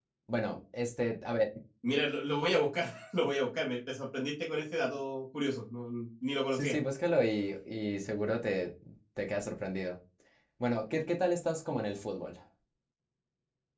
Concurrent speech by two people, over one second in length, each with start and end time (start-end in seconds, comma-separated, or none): none